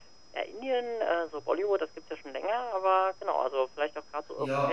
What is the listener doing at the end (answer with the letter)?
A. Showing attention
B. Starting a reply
B